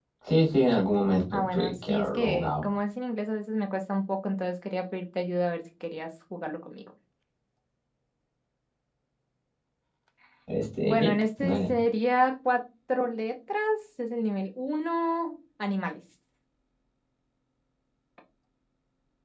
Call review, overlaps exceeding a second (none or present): present